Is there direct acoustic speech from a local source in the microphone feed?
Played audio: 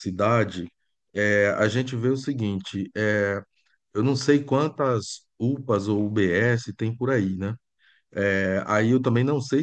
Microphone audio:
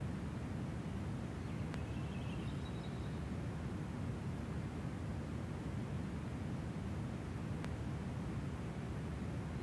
No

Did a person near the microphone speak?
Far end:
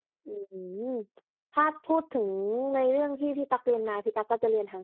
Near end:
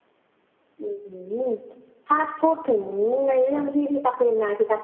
No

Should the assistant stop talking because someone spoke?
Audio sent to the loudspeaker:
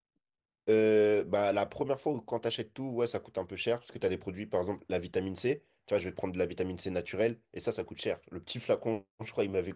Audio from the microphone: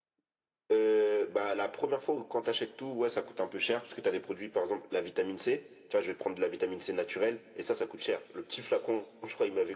No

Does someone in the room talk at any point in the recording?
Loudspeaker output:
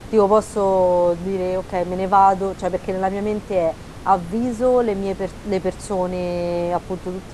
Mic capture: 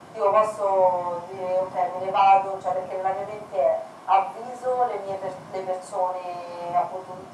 No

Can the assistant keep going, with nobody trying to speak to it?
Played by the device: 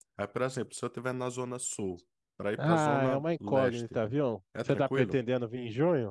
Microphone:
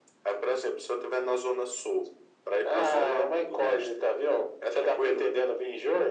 Yes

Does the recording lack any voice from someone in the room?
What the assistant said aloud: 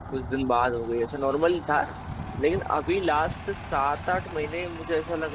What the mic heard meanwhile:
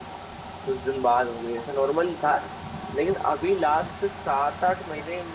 Yes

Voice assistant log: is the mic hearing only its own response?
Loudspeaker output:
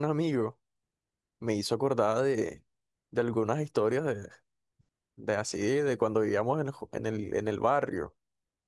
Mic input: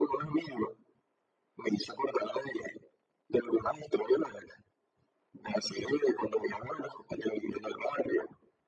Yes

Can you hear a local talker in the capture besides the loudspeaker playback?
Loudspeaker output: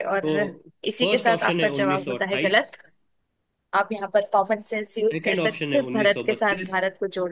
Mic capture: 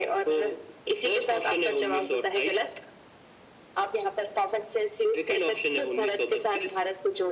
No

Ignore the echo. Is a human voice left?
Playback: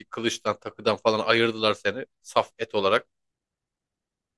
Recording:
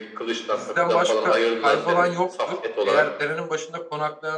Yes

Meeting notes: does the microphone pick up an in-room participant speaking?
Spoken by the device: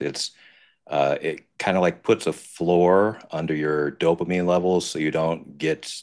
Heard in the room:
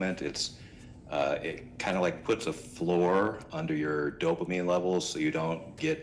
No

